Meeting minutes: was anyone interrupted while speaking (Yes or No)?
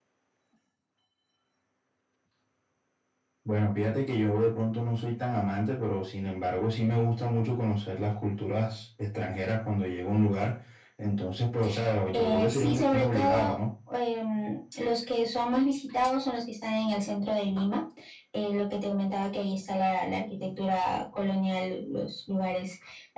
Yes